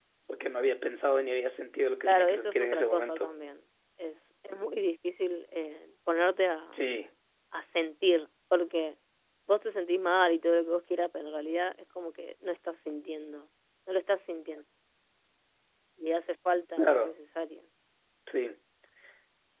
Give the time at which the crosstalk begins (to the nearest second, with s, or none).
2 s